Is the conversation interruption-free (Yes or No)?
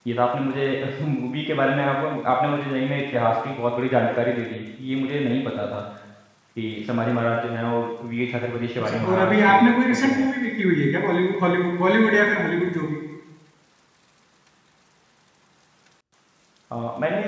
No